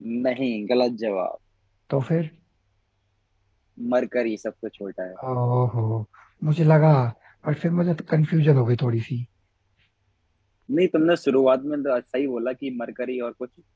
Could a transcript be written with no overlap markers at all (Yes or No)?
Yes